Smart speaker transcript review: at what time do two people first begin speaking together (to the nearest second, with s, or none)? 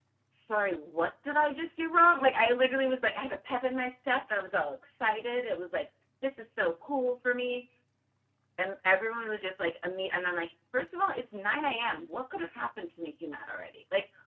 none